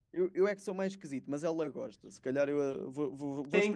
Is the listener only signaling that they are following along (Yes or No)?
No